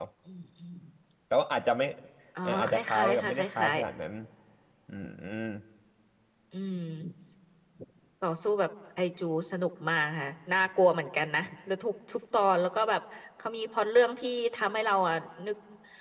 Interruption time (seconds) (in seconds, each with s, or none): 2.4 s